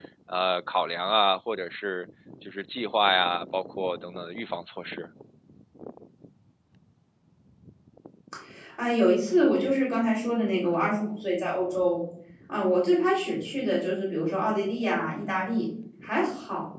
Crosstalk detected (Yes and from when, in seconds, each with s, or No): No